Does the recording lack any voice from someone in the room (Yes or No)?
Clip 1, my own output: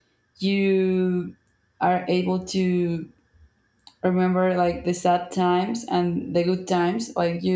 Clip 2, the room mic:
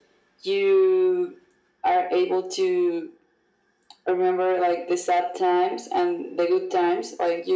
Yes